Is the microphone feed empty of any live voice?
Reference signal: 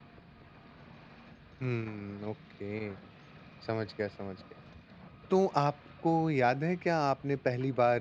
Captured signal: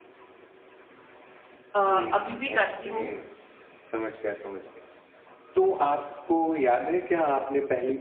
No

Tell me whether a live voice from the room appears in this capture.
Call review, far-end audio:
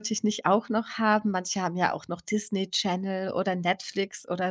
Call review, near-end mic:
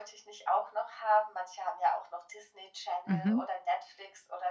Yes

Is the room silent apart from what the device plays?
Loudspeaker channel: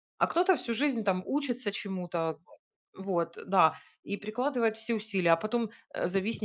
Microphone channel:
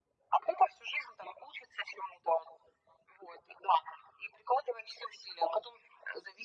Yes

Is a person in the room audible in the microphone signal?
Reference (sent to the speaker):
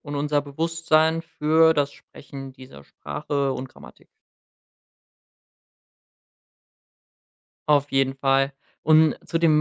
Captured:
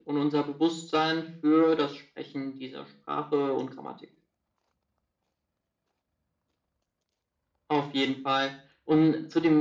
No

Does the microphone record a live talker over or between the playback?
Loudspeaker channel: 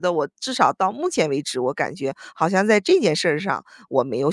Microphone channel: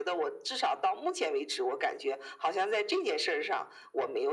No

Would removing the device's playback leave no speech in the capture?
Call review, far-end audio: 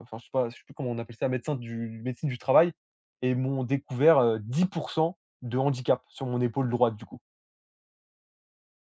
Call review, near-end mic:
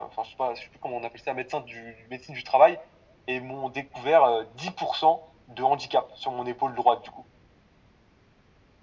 Yes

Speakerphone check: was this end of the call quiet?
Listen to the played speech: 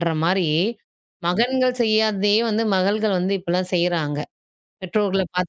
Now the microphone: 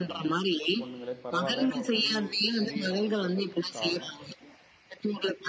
No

